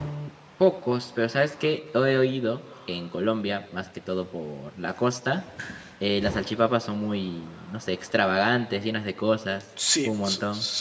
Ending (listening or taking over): taking over